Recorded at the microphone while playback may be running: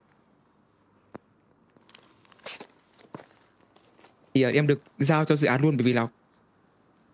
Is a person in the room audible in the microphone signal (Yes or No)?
Yes